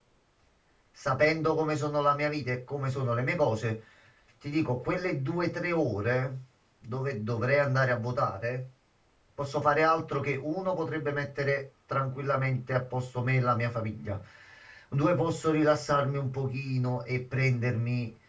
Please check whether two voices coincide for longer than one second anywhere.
No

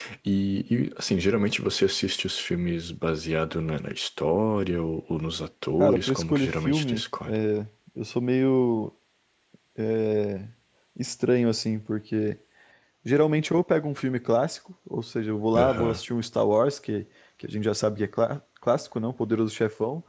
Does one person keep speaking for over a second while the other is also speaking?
Yes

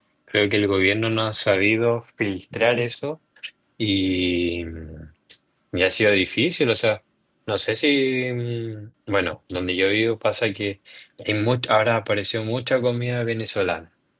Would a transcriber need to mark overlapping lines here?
No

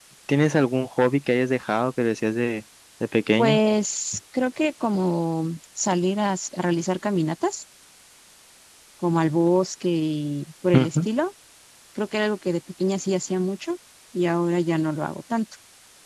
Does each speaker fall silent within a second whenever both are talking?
Yes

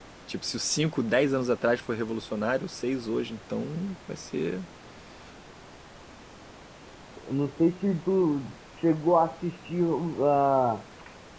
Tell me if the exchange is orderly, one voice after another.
Yes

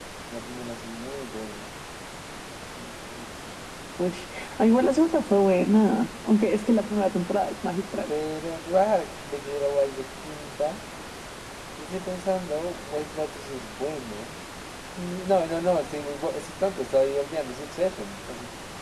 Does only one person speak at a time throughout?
Yes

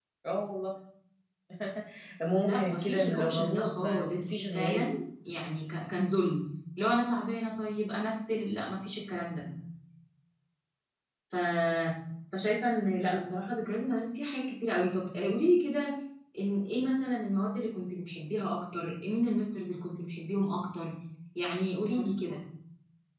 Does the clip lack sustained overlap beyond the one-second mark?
No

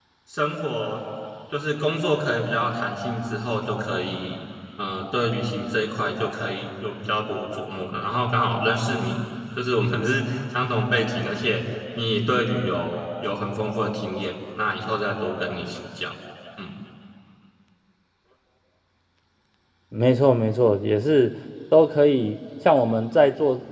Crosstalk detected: No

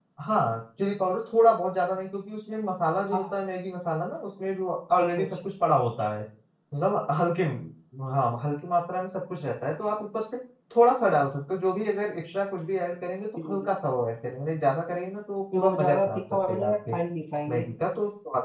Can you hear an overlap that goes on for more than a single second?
Yes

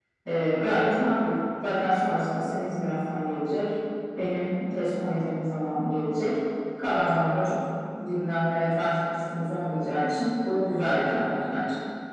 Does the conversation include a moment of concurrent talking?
No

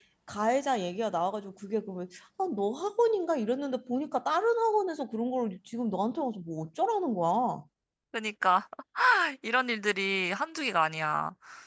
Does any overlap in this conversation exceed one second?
No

